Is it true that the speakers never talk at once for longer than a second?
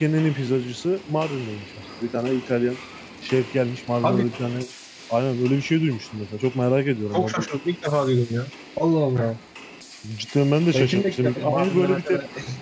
No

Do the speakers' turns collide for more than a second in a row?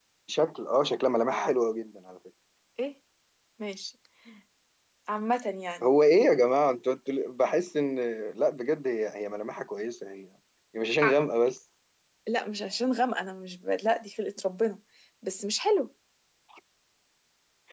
No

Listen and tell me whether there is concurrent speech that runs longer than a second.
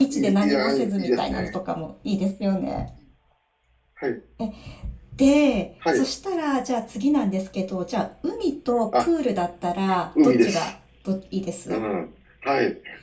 Yes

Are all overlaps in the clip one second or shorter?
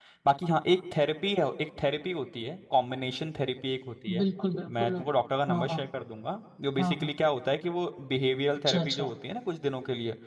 Yes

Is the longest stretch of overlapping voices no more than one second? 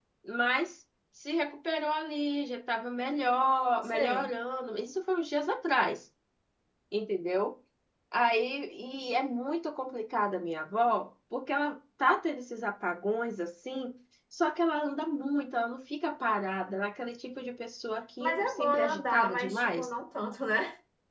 No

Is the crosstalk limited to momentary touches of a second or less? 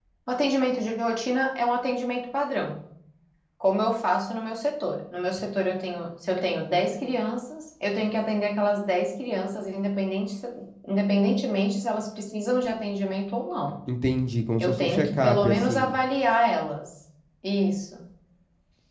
No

